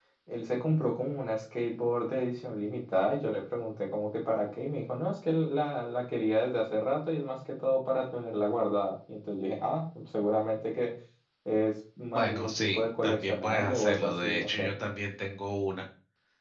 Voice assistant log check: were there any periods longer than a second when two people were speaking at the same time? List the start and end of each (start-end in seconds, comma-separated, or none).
12.1-14.7